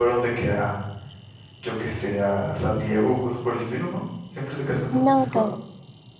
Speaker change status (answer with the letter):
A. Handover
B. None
A